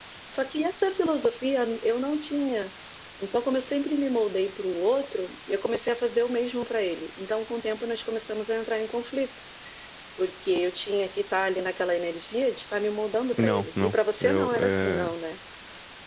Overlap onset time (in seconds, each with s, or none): 13.3 s